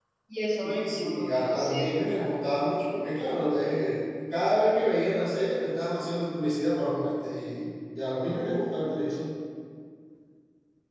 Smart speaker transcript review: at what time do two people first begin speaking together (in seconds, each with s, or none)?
0.6 s